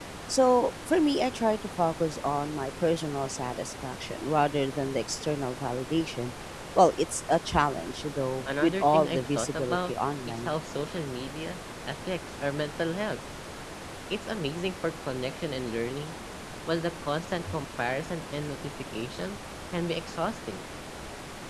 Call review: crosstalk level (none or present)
present